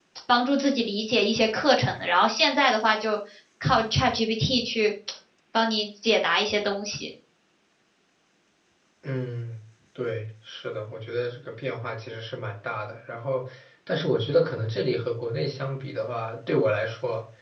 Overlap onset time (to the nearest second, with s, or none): none